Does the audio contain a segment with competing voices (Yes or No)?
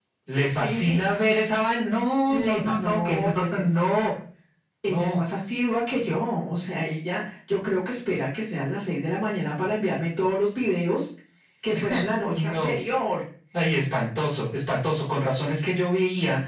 Yes